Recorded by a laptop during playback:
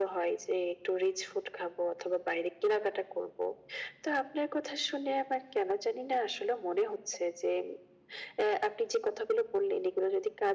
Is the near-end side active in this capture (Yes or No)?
No